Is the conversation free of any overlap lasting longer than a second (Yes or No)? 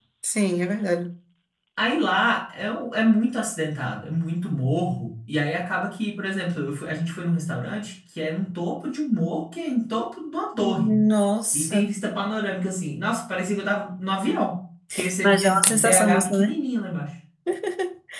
No